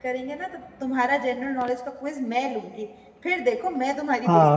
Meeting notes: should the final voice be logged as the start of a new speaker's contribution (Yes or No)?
Yes